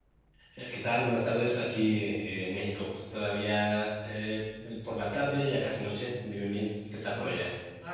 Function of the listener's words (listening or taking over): taking over